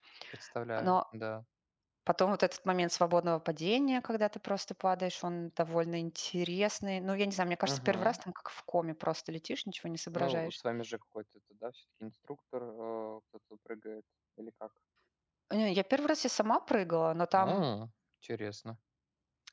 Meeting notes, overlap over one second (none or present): none